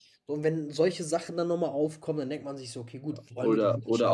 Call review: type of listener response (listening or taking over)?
taking over